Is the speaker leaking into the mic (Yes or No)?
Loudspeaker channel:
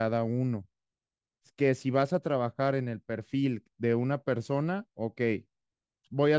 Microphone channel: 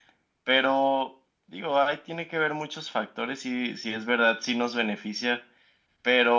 No